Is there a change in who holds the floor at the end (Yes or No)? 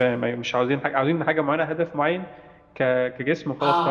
Yes